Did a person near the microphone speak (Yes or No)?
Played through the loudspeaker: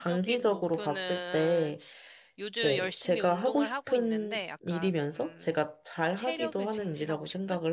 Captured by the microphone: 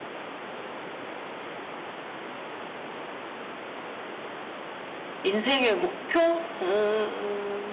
Yes